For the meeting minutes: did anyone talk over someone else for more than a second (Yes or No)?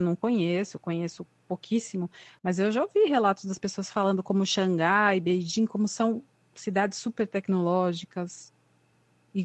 No